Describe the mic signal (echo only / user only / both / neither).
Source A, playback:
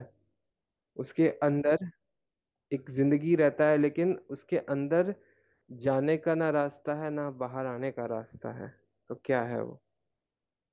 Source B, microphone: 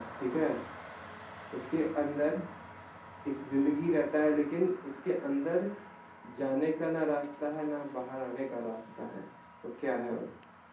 echo only